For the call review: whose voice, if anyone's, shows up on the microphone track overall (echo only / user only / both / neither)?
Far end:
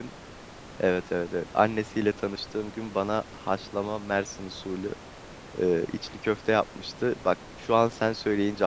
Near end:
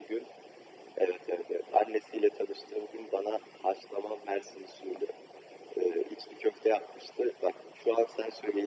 echo only